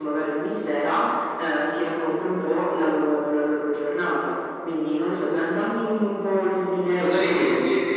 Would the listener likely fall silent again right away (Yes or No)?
No